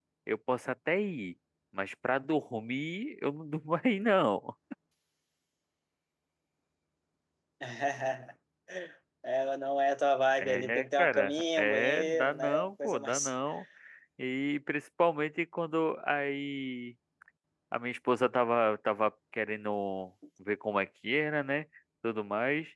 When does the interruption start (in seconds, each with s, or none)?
10.4 s